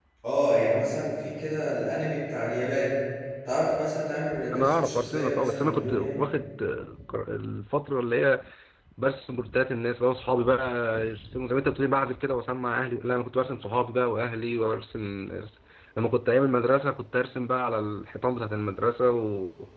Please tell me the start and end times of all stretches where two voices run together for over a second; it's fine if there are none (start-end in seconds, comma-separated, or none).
4.5-6.2